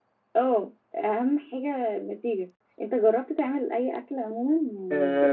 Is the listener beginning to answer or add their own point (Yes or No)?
Yes